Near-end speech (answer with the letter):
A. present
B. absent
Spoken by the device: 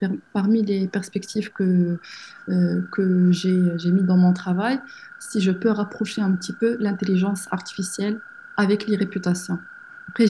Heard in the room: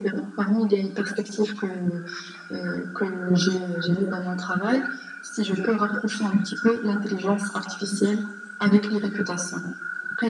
B